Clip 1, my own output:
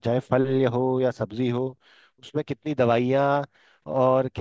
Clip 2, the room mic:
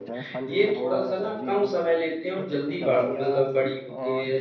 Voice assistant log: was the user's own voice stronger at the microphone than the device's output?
Yes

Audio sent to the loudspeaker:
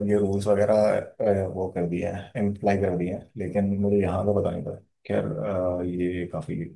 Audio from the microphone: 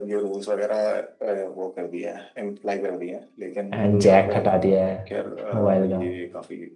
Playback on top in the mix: No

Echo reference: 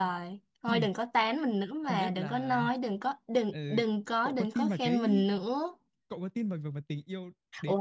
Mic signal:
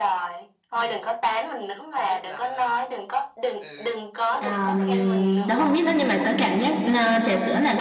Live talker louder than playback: Yes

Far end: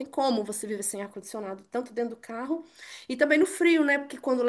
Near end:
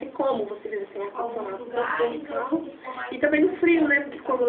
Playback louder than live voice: Yes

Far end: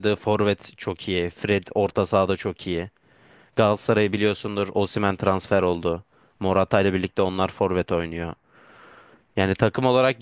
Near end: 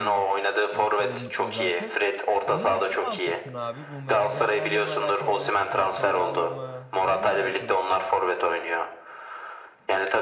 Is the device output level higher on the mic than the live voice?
Yes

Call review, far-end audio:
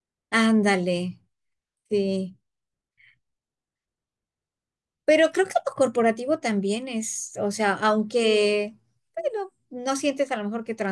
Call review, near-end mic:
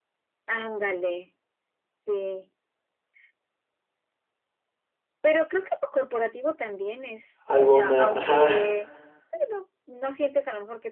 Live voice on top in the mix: Yes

